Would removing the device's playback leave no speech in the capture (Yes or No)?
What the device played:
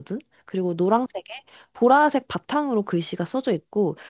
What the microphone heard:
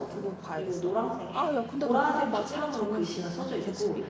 No